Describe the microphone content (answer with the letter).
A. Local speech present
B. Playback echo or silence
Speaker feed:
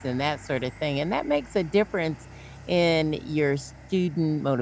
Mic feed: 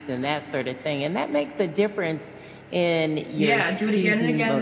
A